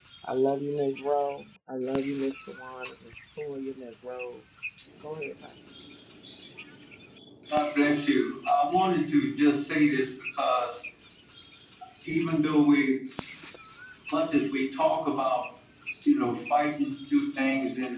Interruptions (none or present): none